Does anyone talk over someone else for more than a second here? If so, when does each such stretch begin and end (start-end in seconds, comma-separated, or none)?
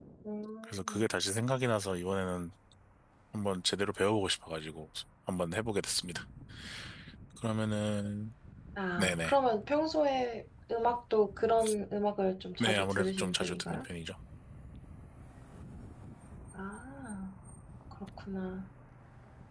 12.6-13.8